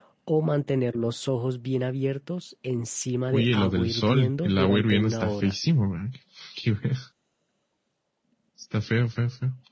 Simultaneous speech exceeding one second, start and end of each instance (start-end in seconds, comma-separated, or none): 3.3-5.5